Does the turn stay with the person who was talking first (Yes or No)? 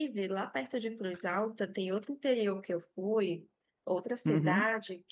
Yes